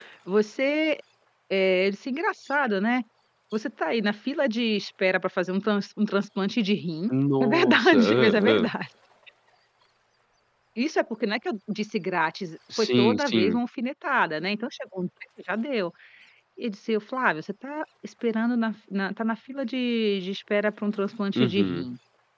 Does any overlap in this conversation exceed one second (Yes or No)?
Yes